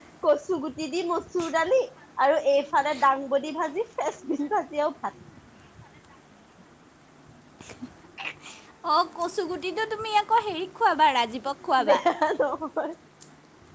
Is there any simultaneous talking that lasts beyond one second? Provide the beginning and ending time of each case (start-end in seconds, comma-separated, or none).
none